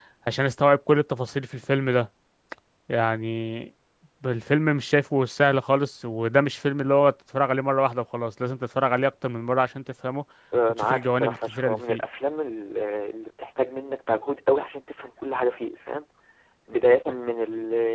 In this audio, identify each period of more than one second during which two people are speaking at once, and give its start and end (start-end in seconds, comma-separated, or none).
10.7-12.0